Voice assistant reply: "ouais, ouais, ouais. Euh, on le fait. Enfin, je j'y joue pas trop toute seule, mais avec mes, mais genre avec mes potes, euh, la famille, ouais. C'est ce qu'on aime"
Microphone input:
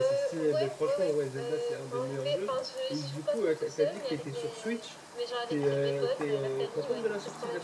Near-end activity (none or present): present